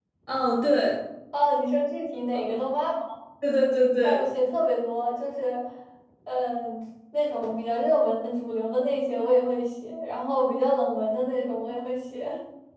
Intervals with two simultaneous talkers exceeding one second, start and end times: none

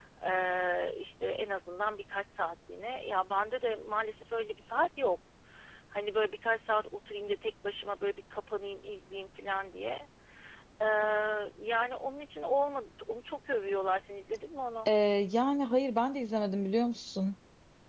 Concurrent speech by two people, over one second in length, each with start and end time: none

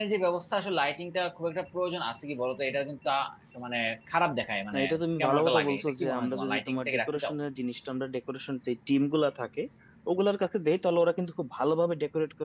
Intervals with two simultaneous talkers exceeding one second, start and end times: 5.2-7.3

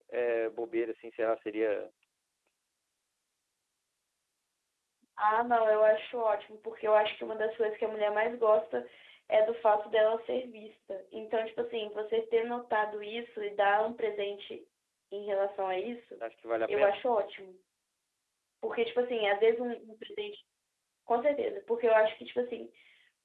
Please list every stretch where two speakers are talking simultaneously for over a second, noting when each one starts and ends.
none

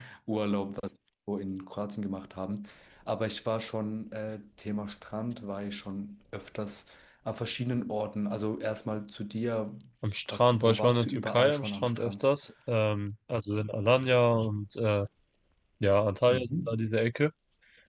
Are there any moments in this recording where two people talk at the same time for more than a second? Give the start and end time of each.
10.3-12.2

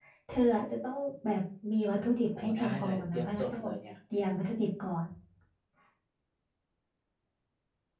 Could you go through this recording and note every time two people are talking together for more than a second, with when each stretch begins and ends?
2.4-3.7

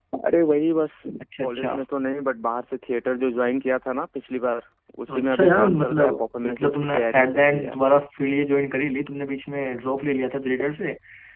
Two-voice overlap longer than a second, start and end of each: 5.1-7.8

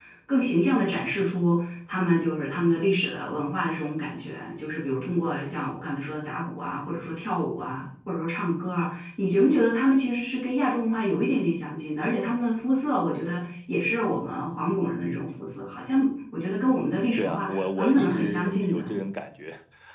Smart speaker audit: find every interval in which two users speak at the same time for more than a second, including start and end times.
17.1-18.9

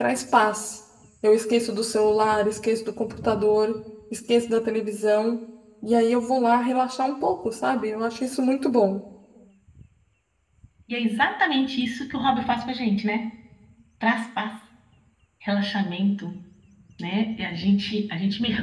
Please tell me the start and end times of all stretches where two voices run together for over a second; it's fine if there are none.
none

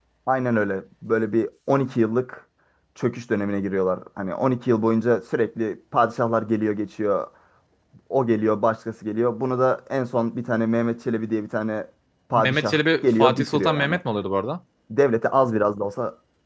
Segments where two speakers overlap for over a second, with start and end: 12.3-14.0

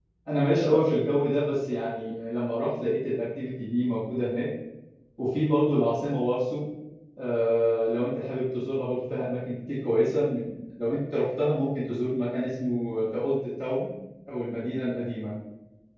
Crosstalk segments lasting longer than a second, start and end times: none

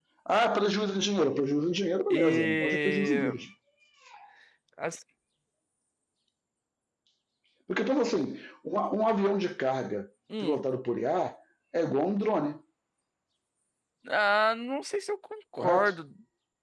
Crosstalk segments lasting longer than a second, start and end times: 2.1-3.4

